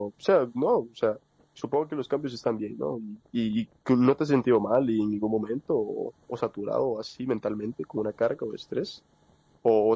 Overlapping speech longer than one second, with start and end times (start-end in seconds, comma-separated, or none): none